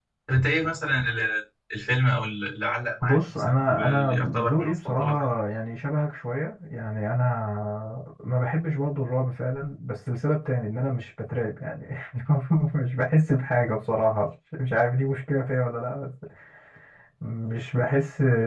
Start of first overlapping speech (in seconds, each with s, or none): 3.0 s